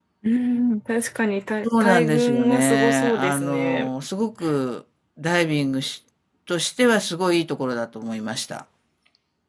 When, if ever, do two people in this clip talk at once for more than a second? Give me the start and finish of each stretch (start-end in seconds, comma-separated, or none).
1.6-3.9